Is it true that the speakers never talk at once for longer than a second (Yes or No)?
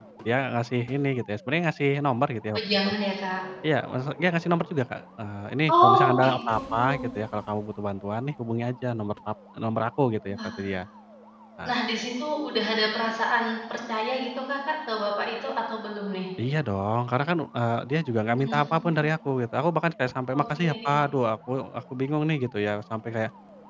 No